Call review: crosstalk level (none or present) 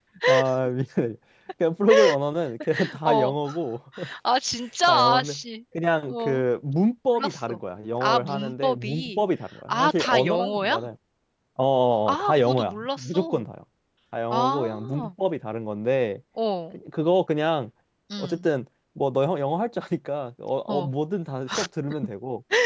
present